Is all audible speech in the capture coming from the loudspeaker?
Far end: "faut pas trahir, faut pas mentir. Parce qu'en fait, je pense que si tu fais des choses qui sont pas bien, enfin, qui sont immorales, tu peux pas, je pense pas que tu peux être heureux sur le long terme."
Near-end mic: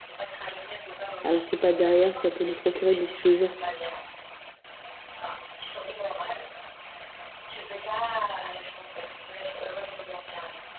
No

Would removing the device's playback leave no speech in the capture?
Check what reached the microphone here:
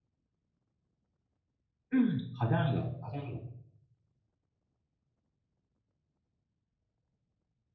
No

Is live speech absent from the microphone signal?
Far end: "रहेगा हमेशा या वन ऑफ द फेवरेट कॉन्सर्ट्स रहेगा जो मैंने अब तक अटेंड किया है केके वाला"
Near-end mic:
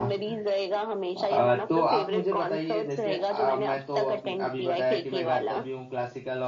No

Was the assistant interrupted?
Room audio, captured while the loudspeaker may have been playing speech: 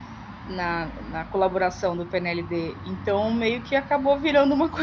Yes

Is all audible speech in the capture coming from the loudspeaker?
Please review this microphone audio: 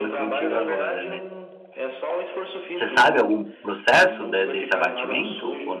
No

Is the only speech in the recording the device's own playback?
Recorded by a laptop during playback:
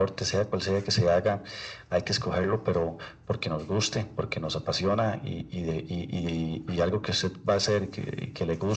Yes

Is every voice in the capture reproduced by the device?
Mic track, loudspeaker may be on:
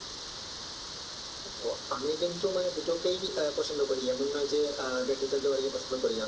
Yes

